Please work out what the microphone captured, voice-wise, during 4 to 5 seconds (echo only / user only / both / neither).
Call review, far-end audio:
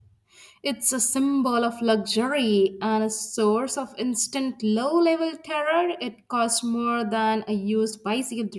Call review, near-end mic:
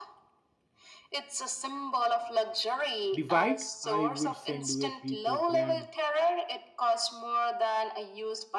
both